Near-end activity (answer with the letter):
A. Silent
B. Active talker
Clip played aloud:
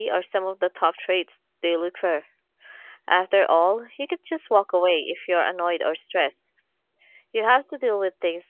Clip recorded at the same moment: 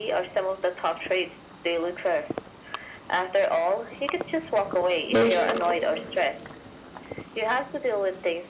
B